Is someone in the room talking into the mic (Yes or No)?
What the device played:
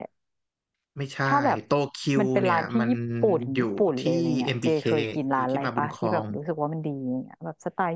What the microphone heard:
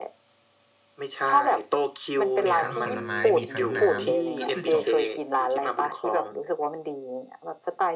Yes